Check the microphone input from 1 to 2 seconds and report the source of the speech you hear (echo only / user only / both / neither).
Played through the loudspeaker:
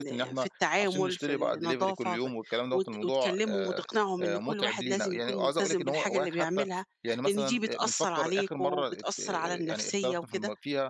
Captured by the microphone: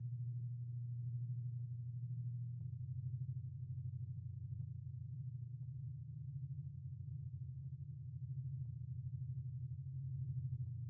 neither